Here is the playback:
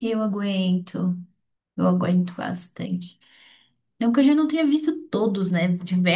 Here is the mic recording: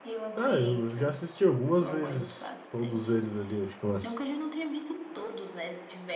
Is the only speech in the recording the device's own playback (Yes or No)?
No